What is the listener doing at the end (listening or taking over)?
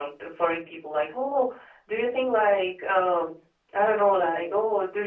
listening